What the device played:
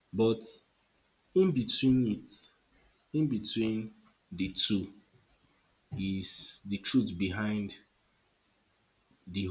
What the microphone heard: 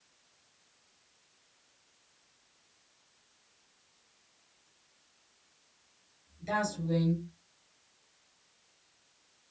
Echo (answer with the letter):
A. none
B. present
A